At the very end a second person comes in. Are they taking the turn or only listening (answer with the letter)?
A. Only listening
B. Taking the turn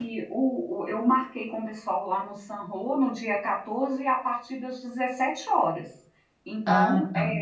A